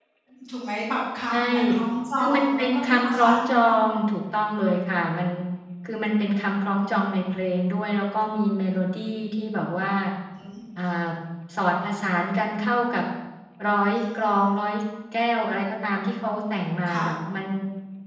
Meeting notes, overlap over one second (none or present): present